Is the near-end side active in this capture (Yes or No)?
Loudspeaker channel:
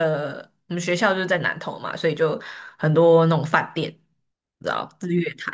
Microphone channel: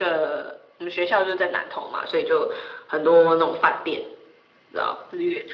No